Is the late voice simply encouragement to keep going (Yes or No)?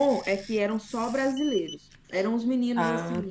Yes